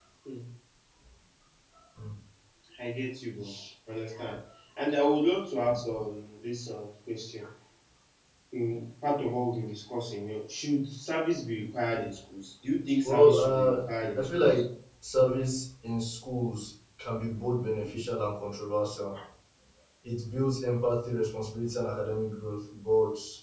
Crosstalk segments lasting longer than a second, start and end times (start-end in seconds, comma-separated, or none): 13.0-14.6